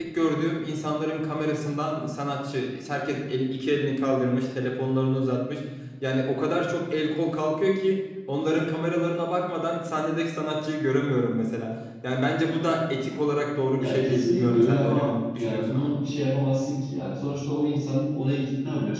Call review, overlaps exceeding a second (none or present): present